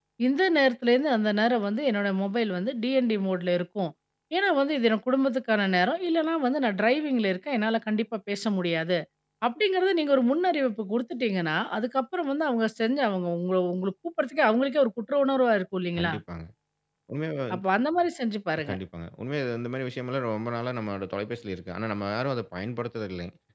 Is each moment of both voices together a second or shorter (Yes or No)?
Yes